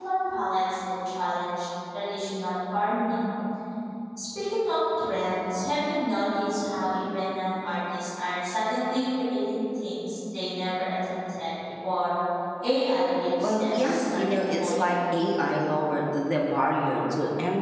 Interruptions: present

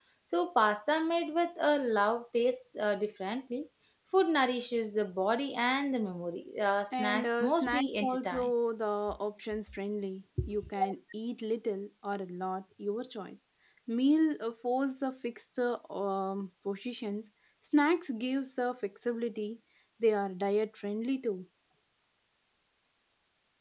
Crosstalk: present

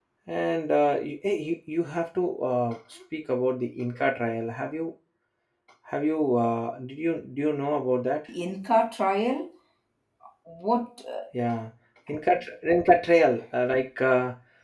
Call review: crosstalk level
none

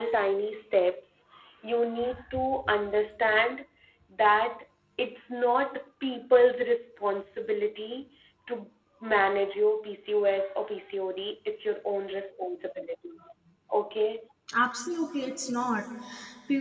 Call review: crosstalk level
none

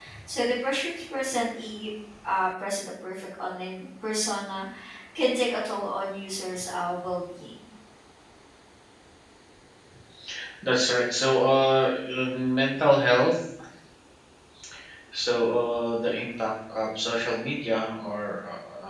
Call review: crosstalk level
none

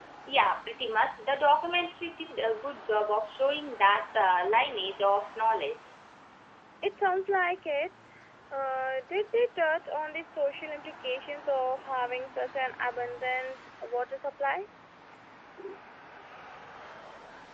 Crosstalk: none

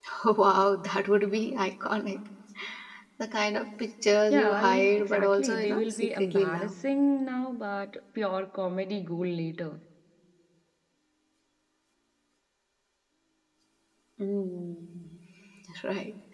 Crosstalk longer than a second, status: present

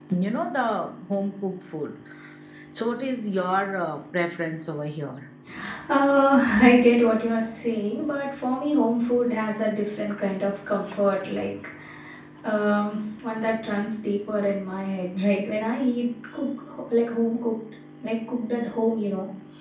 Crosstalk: none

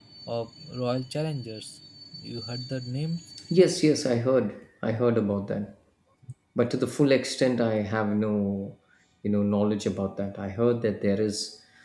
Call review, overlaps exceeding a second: none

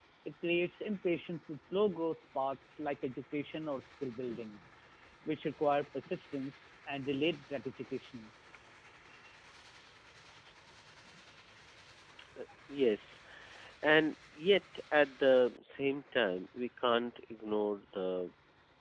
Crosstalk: none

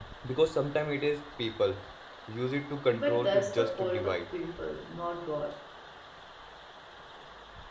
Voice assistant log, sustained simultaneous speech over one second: present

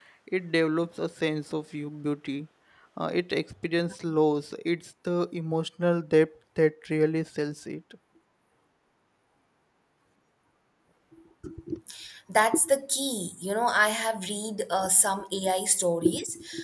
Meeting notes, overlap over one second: none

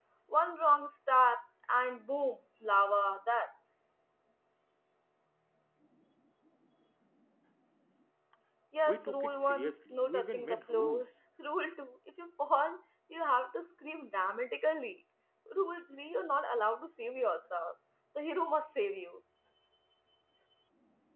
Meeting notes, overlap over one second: present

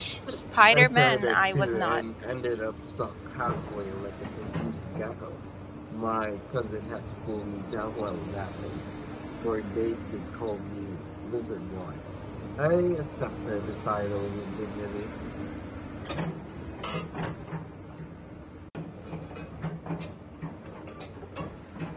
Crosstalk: present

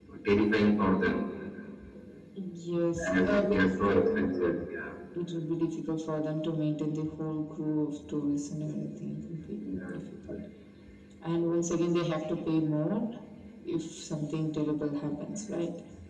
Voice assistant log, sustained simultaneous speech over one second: present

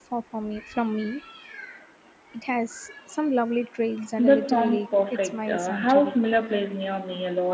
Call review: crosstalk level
present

